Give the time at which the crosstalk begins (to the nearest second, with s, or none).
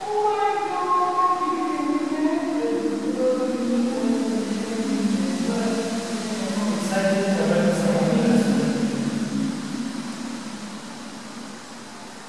7 s